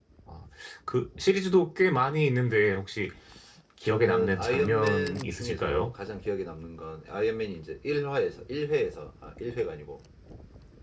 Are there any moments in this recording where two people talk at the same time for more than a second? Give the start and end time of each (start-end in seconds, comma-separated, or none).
3.8-5.9